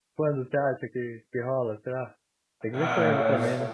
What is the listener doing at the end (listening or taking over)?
taking over